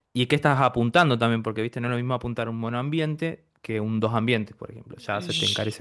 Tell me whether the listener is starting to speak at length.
Yes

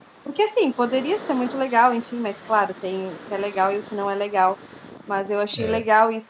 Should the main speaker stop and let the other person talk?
No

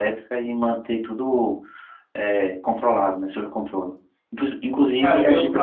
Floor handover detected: Yes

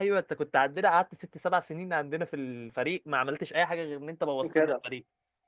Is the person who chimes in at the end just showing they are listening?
Yes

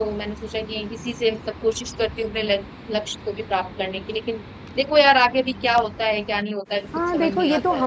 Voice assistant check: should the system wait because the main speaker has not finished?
No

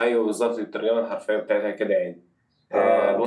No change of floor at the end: Yes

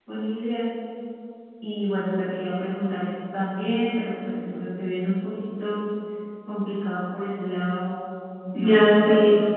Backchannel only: No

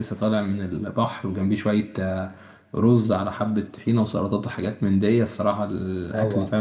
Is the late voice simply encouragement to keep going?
No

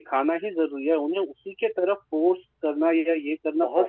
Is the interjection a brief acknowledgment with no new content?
No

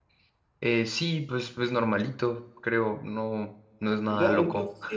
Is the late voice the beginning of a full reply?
Yes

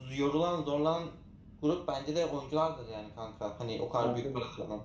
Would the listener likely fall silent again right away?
Yes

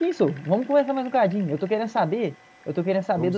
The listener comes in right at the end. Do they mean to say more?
No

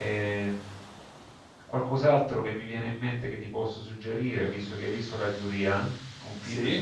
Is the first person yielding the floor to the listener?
No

